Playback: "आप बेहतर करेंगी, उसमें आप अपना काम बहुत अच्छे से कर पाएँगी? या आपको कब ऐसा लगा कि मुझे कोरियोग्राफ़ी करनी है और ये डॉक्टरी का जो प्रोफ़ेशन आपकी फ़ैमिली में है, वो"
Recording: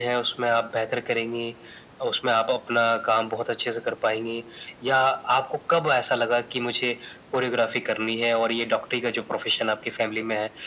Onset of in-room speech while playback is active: none

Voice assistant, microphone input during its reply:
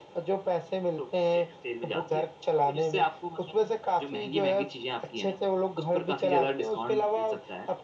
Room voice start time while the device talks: none

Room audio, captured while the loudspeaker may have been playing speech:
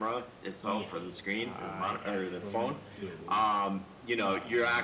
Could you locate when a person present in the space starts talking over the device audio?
0.6 s

